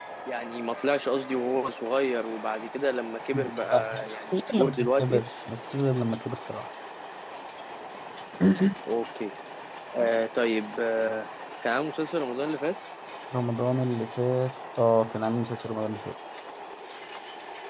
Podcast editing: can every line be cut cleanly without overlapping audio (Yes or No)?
No